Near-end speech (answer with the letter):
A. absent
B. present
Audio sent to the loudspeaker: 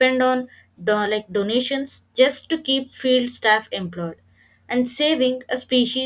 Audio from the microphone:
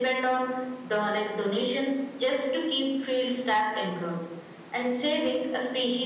A